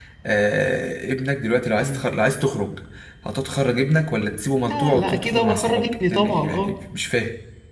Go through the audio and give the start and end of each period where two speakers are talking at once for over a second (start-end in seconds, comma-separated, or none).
4.7-6.7